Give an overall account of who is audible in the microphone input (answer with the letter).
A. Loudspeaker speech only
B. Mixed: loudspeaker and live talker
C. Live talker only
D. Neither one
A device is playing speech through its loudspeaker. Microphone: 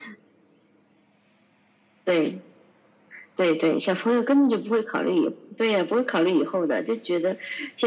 A